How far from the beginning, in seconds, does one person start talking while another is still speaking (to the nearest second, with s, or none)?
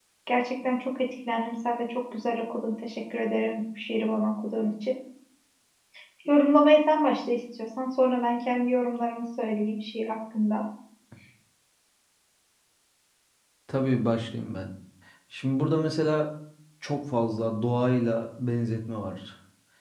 none